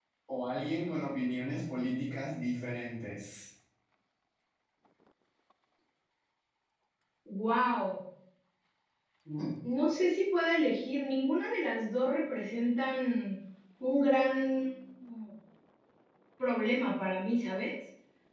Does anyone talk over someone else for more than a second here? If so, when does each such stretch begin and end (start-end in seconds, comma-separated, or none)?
none